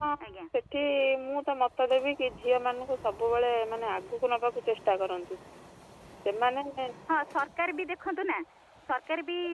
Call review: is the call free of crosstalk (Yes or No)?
Yes